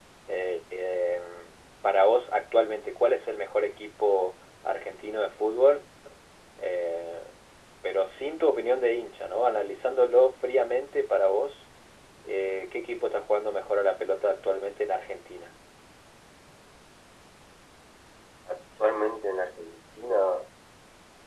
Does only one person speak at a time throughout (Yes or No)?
Yes